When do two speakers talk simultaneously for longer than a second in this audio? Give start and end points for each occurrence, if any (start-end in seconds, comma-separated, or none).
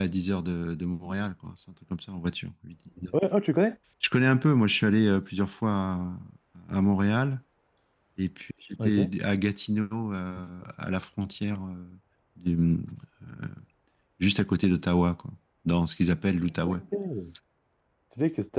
none